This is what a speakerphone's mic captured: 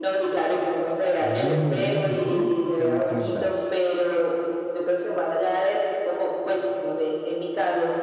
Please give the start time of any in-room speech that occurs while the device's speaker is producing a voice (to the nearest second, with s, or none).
1 s